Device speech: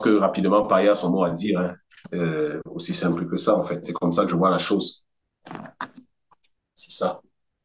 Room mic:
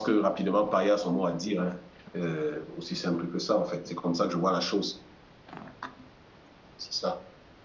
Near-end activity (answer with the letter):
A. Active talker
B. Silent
B